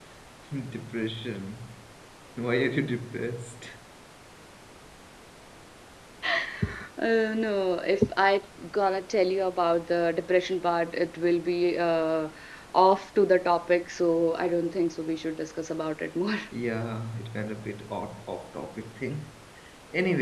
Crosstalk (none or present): none